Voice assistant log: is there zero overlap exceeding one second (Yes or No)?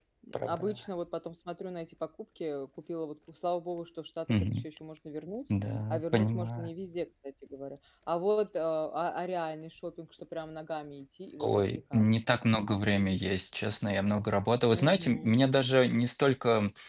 No